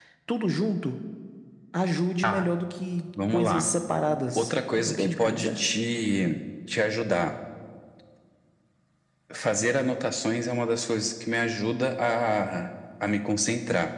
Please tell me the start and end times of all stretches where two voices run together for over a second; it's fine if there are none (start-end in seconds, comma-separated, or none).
4.3-5.6